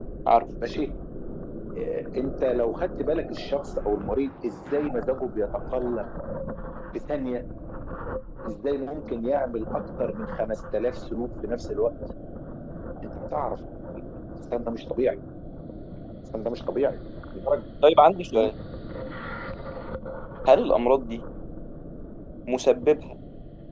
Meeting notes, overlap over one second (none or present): none